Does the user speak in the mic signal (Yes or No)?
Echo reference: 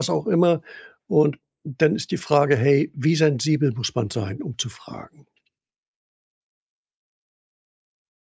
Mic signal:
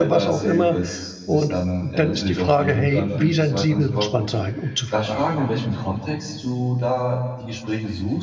Yes